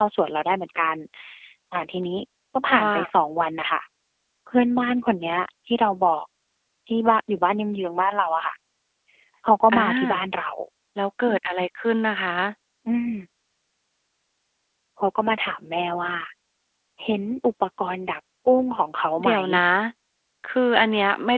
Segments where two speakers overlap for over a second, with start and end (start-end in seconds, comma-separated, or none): none